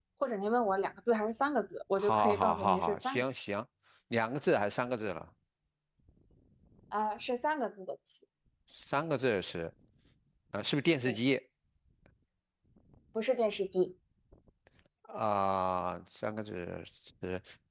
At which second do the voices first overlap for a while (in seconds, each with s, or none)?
2.0 s